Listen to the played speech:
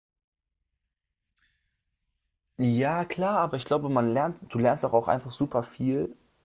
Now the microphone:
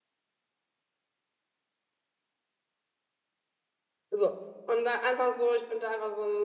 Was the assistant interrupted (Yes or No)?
Yes